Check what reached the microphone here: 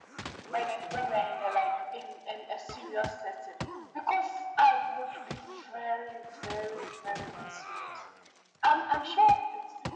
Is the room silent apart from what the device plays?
Yes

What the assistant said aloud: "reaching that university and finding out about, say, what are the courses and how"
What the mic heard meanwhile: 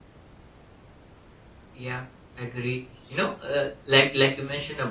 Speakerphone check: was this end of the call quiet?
No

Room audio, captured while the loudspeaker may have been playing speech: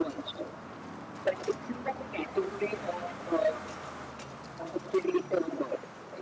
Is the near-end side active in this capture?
No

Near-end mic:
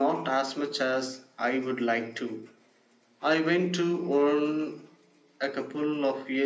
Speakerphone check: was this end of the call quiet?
Yes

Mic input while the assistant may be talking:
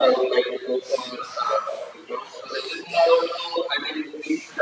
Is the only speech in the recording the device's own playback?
Yes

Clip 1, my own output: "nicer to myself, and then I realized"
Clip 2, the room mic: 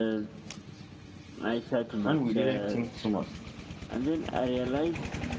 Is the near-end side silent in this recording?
No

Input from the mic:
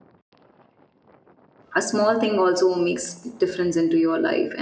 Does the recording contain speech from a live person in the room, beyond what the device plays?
Yes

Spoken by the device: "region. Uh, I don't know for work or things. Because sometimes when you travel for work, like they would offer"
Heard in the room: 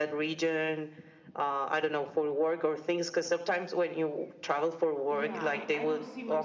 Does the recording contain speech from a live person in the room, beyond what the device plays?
Yes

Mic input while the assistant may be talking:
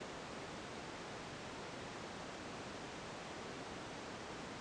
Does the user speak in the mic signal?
No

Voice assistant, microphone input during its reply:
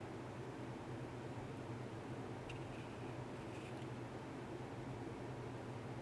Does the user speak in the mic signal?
No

